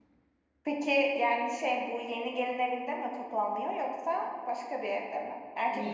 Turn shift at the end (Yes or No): Yes